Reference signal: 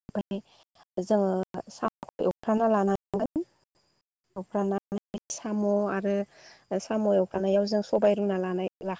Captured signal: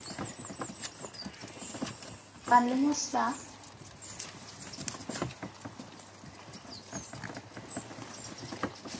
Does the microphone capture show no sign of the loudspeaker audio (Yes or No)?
Yes